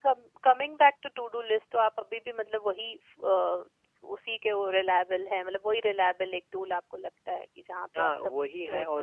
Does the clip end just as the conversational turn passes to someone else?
Yes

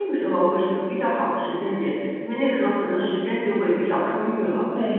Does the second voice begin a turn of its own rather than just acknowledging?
Yes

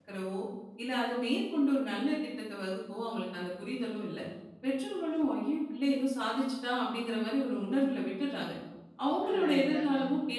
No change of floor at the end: Yes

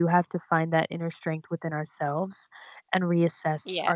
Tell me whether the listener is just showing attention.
Yes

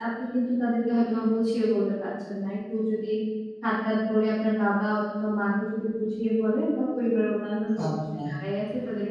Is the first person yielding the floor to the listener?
No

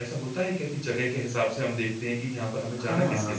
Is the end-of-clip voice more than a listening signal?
Yes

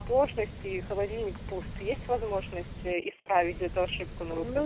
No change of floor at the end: No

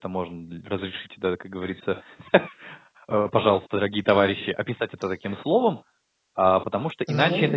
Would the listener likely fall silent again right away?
Yes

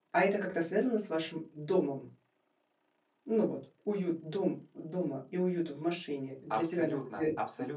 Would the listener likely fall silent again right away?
No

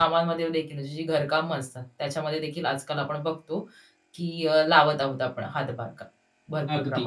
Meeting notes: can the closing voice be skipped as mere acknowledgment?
No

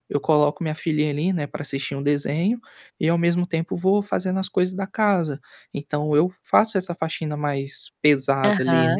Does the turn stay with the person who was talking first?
No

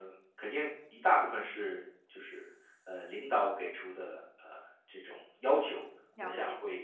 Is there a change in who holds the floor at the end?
No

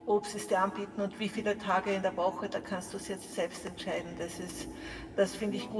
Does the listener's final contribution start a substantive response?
No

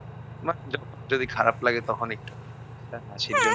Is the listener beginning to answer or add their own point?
Yes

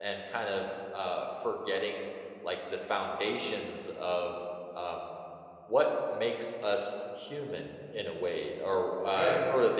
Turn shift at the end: No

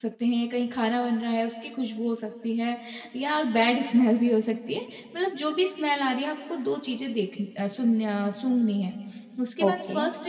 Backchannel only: Yes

